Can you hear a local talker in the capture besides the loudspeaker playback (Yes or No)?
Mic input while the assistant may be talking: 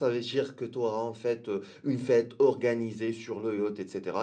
No